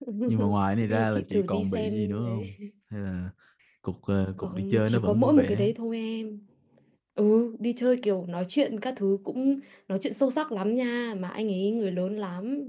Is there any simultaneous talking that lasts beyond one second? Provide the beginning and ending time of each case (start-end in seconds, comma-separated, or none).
0.9-2.5, 4.4-5.7